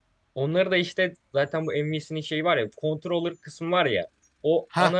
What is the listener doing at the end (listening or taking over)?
listening